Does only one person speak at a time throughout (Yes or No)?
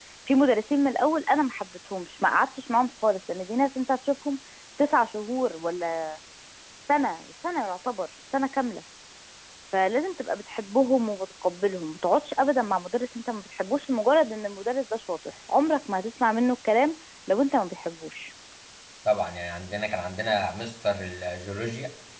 Yes